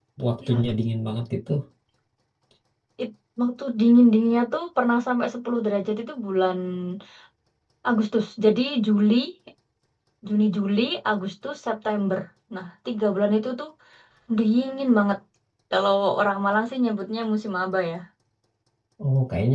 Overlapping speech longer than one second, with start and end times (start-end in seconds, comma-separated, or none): none